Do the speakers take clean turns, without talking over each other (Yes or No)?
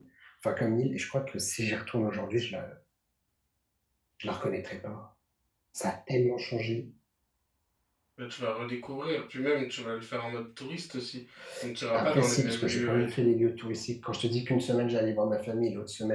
No